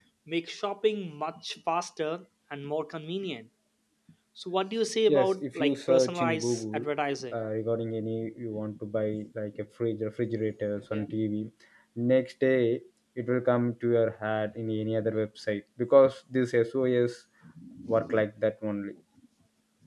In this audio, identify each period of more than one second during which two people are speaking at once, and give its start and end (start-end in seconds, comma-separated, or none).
5.1-6.8